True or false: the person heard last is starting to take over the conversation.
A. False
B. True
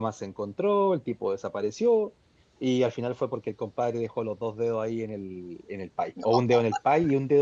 A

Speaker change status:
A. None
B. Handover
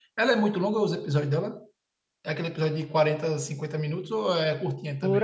B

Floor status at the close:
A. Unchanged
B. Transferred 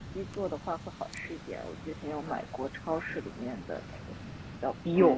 B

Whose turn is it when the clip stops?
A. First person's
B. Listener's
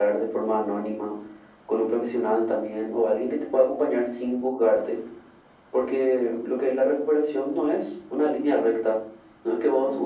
A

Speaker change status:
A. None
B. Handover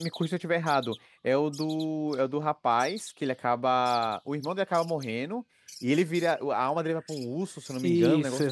B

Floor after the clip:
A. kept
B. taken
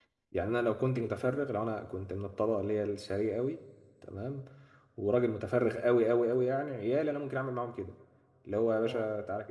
A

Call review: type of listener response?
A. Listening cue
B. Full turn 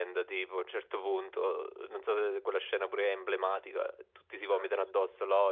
A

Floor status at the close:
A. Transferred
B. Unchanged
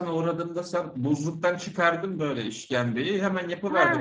A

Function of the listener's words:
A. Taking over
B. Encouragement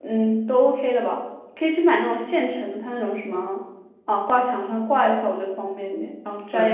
A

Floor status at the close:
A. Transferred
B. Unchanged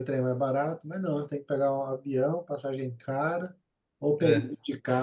B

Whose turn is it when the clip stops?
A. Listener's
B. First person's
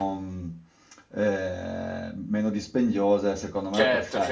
A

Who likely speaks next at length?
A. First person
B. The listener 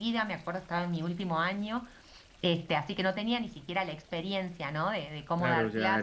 B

